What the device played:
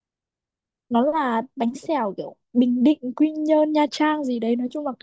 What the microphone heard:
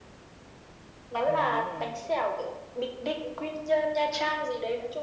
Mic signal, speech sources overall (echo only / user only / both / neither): both